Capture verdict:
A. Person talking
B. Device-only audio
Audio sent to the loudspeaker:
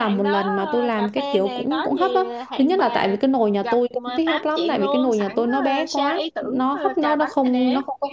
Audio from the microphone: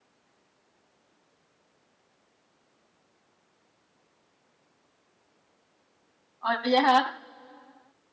A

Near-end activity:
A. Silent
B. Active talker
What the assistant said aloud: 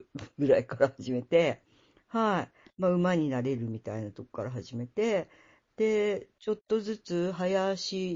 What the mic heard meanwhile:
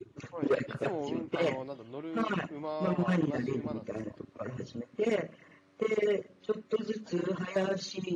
B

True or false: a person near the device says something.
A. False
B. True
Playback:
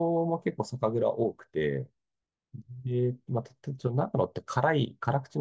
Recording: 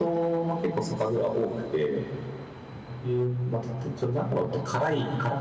A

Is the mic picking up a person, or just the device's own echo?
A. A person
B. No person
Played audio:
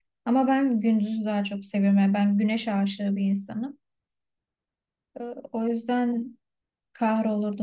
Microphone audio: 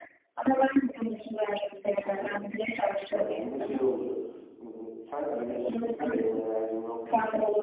A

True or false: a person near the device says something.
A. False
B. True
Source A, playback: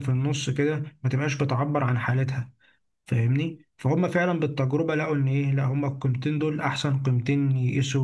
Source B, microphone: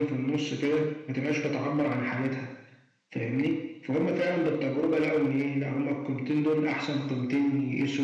A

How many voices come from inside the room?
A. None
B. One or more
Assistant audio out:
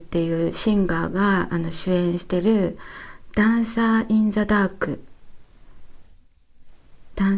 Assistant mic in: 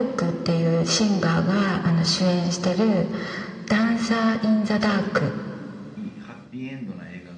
B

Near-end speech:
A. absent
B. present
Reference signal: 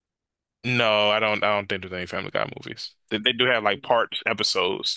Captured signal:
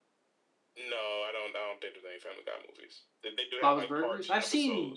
B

